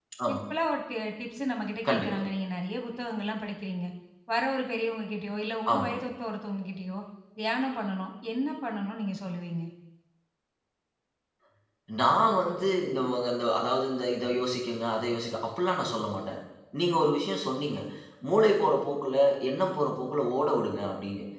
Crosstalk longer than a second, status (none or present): none